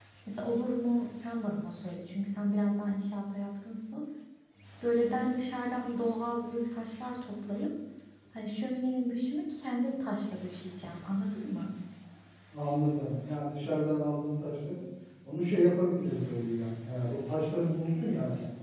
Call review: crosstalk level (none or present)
none